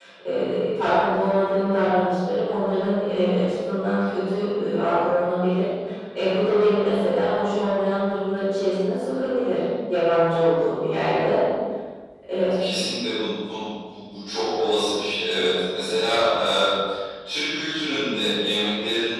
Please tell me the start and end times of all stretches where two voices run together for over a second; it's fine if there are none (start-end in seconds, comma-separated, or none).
none